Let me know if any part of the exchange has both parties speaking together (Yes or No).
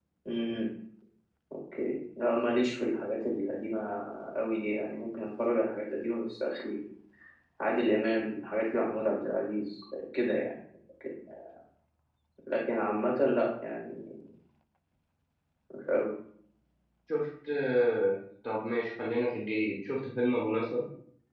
No